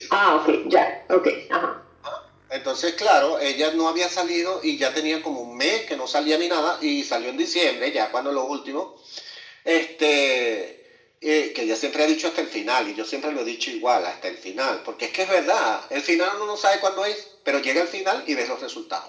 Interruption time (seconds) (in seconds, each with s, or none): none